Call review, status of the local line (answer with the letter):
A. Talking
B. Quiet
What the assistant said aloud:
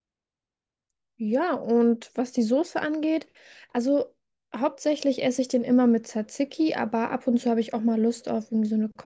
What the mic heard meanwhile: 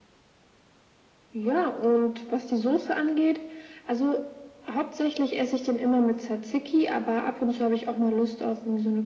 B